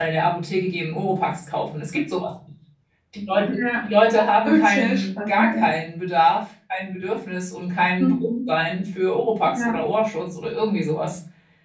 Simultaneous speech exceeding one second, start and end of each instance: 4.4-5.7

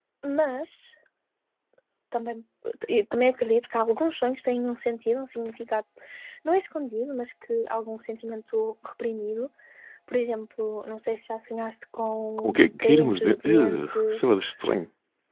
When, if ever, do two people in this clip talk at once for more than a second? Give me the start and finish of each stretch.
12.4-14.3

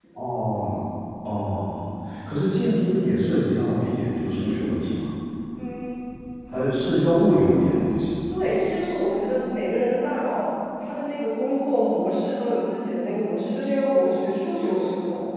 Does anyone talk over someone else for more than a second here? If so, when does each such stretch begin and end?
none

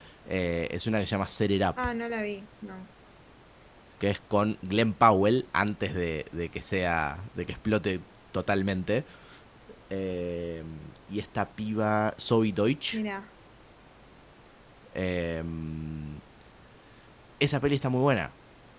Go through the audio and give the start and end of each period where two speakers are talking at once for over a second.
none

